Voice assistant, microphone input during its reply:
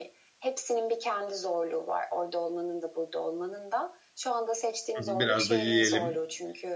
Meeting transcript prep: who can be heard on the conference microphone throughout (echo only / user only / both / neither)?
both